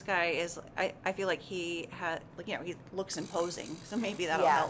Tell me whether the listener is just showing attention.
No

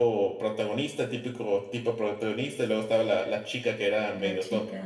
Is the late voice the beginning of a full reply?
No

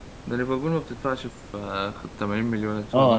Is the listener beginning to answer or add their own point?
Yes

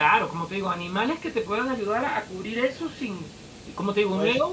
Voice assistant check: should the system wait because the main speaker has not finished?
Yes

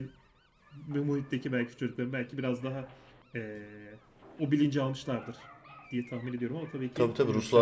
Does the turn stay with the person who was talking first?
No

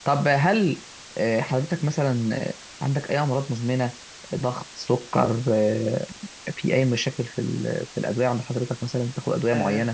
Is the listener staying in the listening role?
No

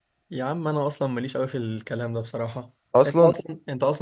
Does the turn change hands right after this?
No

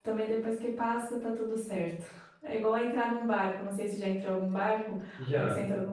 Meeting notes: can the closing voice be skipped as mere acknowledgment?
Yes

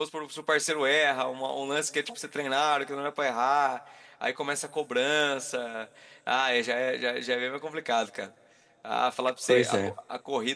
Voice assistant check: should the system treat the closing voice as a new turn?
No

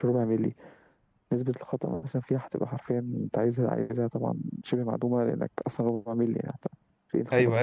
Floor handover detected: Yes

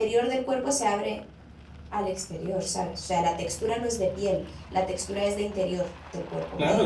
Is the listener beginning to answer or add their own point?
Yes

